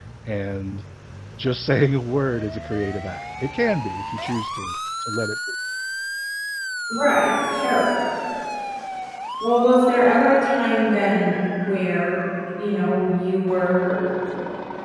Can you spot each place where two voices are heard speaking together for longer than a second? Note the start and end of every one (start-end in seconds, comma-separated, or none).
none